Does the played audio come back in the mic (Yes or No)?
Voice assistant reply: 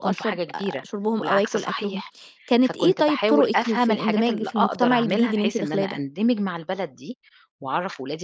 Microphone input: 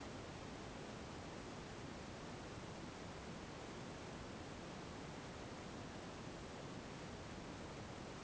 No